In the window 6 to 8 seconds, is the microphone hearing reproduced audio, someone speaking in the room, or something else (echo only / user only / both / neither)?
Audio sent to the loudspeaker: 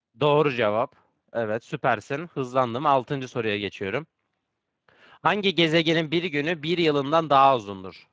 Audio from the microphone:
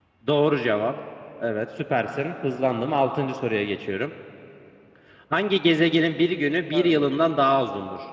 both